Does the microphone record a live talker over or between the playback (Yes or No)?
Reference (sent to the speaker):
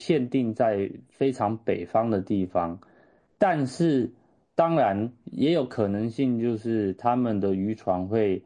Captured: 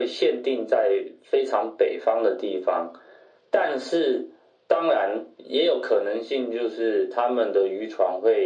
No